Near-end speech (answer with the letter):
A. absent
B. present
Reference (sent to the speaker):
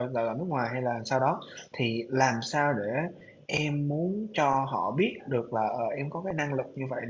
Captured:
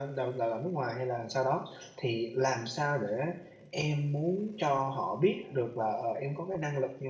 A